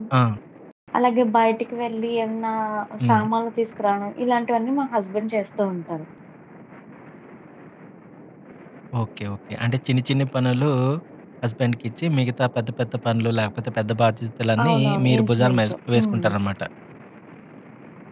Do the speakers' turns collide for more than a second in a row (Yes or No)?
Yes